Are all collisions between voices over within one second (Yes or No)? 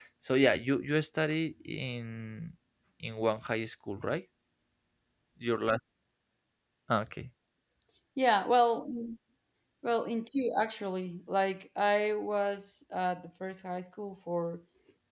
Yes